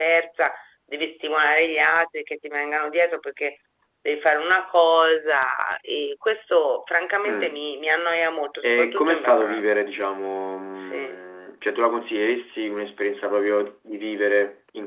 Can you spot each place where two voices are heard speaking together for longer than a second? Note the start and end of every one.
8.6-9.9

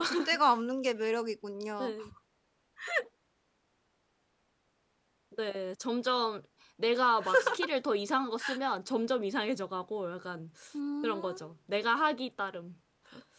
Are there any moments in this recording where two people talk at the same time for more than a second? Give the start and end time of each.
none

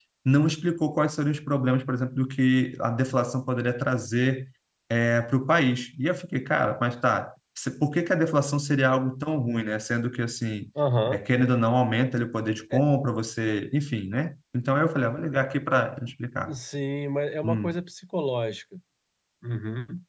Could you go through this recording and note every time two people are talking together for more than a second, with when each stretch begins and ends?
none

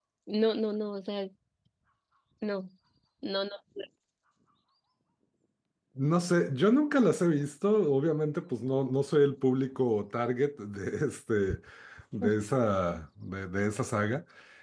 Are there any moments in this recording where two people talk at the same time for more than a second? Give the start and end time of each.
none

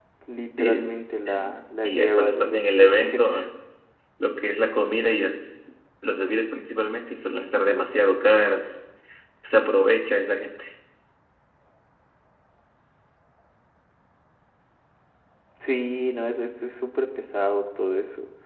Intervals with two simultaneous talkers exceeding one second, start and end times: 1.8-3.3

